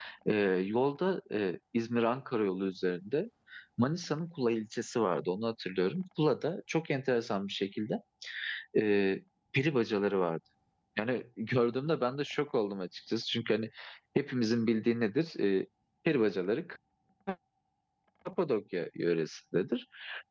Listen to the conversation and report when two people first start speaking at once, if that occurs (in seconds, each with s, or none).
none